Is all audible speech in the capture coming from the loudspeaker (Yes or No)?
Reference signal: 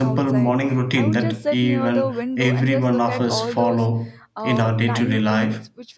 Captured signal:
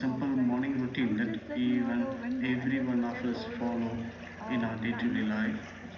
Yes